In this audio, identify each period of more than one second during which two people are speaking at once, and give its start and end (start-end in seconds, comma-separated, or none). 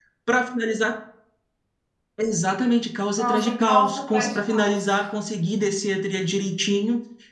3.2-4.9